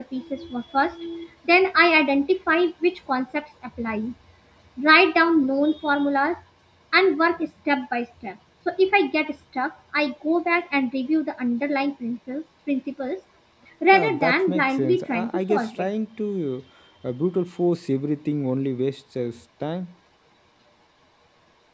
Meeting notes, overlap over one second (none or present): present